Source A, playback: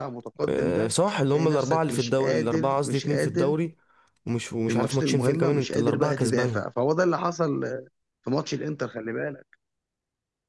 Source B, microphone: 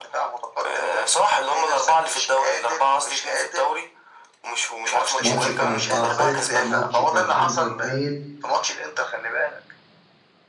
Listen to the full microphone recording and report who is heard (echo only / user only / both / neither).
both